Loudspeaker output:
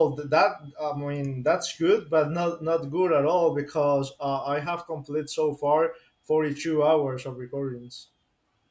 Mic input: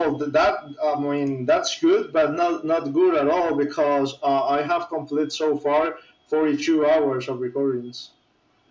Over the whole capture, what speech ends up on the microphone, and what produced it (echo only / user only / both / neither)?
echo only